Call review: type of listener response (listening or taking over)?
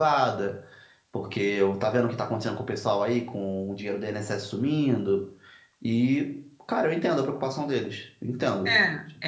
taking over